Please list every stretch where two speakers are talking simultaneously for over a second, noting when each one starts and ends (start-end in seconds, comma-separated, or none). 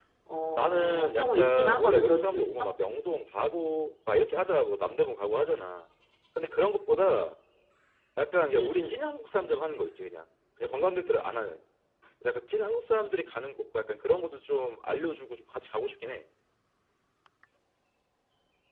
0.6-2.7